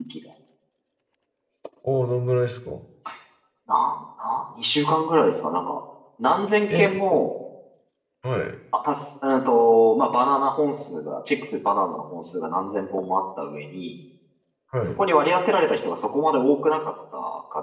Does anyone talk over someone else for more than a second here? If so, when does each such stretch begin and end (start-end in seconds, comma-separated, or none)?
none